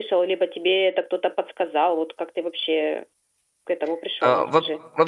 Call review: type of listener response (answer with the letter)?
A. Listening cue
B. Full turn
B